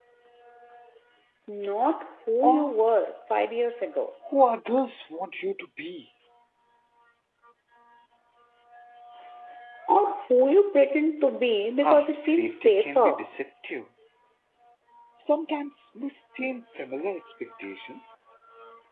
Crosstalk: present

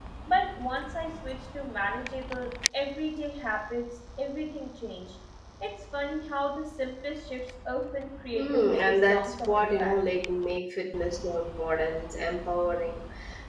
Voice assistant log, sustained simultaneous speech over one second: present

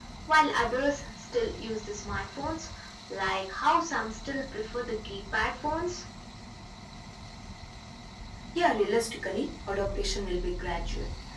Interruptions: none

